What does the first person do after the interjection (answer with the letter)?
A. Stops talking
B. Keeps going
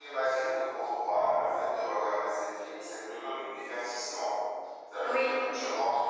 B